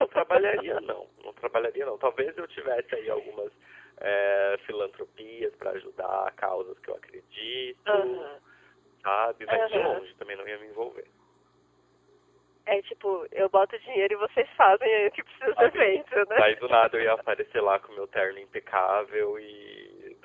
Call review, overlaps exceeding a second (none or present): none